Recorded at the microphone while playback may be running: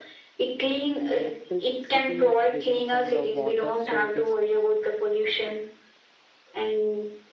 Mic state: both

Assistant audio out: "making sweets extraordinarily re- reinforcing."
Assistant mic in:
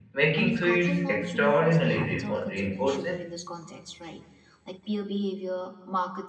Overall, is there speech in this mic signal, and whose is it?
both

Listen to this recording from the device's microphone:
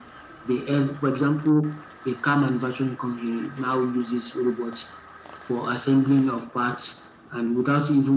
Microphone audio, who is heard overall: echo only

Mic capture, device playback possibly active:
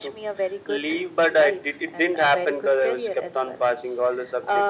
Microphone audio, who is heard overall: echo only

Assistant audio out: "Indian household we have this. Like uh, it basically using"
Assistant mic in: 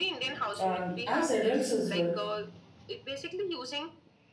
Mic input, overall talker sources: both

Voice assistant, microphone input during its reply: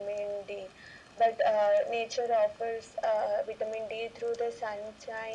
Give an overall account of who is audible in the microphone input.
echo only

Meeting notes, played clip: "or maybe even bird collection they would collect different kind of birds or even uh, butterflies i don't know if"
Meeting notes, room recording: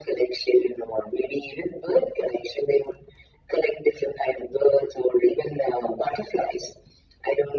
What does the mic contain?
echo only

